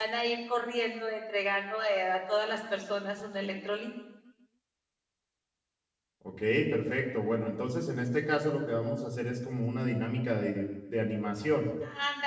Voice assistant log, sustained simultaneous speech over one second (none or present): none